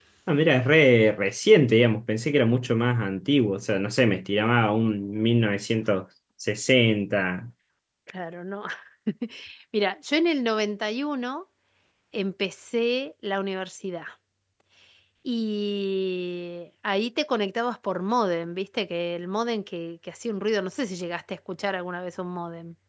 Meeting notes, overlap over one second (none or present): none